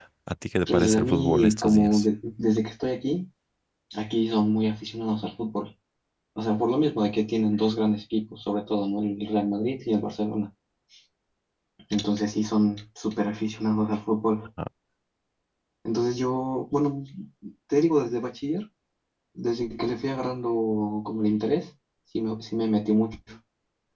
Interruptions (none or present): present